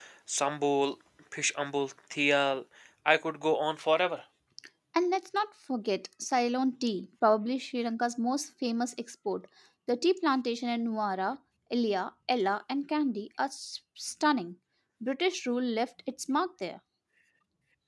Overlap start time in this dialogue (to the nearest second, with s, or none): none